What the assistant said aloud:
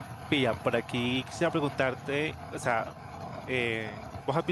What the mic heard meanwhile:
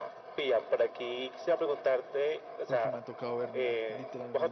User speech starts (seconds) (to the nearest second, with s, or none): 3 s